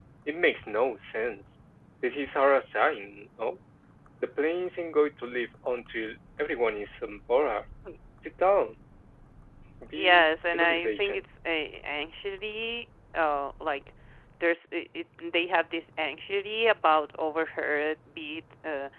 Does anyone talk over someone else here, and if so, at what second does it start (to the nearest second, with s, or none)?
10 s